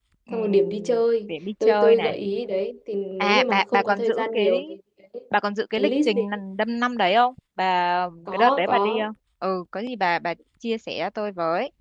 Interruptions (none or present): present